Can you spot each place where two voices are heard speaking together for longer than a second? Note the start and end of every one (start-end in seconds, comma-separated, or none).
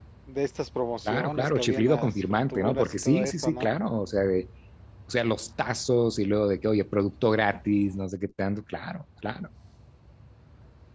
1.1-3.7